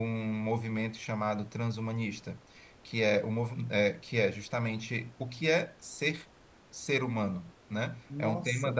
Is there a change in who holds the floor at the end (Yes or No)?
No